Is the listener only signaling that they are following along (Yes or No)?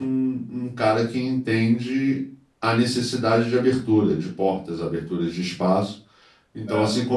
Yes